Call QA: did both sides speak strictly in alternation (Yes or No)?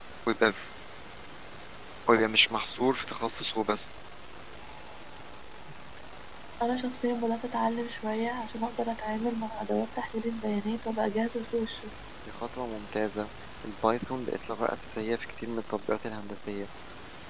Yes